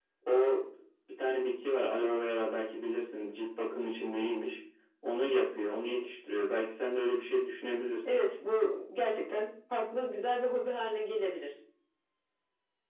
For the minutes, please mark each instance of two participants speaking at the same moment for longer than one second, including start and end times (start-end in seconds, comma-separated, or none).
none